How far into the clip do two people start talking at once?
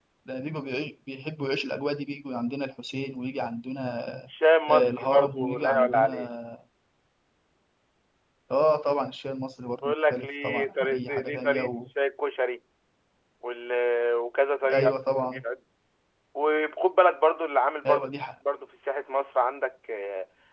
5 s

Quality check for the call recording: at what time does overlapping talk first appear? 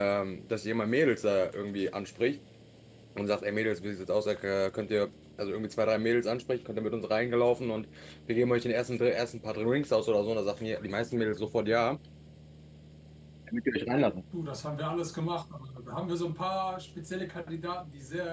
none

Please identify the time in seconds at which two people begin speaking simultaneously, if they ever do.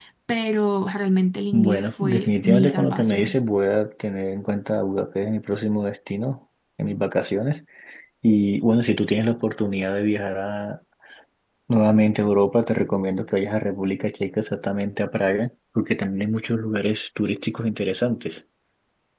2 s

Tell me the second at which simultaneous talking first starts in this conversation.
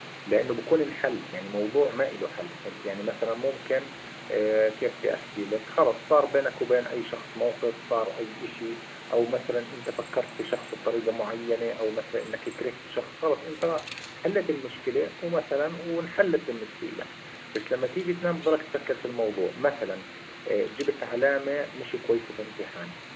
none

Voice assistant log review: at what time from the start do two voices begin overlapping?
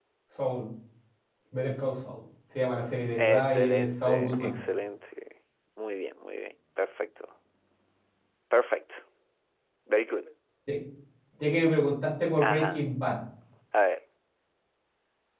3 s

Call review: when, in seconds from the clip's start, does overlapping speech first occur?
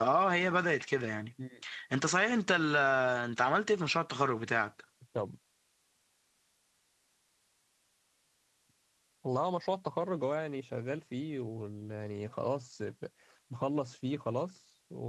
none

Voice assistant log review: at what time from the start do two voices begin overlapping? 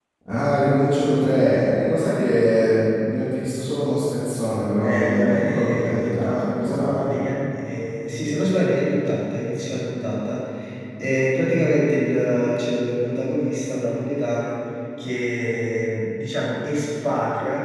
5 s

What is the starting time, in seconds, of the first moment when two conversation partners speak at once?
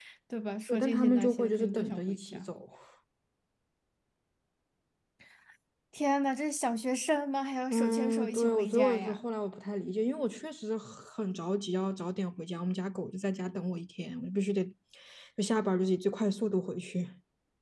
1 s

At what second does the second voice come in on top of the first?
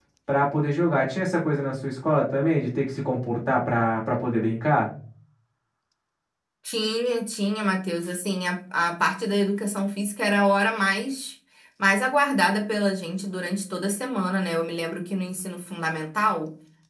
none

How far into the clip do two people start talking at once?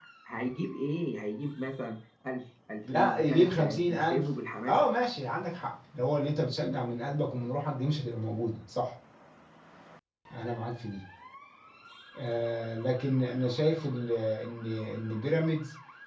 3 s

